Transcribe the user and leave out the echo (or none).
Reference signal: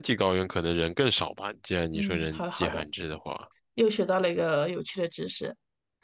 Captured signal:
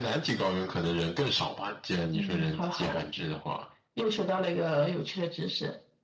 none